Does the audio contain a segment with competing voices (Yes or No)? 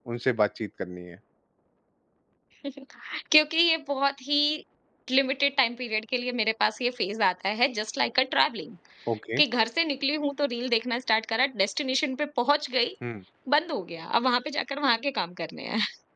No